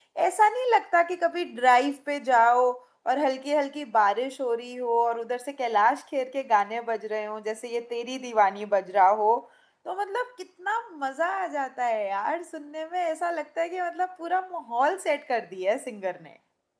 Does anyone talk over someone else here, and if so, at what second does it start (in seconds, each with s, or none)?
none